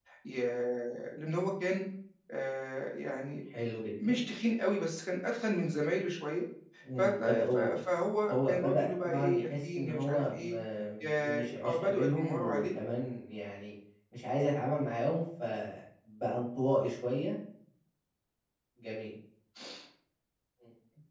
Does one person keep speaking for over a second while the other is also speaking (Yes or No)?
Yes